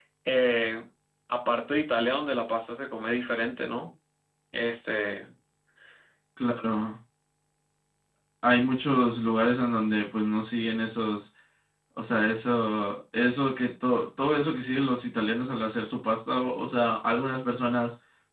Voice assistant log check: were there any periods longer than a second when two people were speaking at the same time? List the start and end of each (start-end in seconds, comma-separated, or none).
none